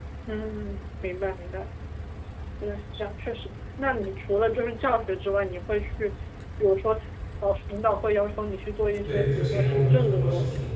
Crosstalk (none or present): present